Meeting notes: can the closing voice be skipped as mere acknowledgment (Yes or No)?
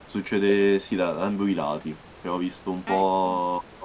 Yes